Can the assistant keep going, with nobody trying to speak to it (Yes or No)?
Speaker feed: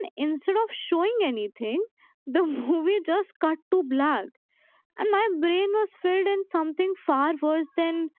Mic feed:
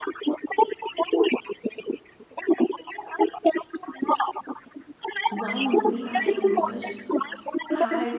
No